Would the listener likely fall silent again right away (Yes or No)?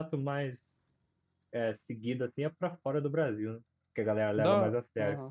No